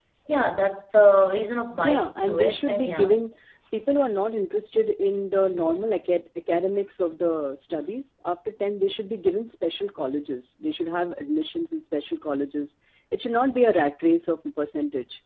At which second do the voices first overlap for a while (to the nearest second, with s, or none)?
2 s